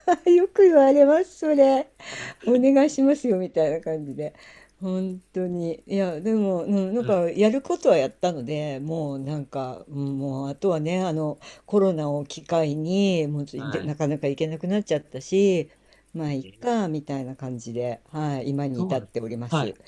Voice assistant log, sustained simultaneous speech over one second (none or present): none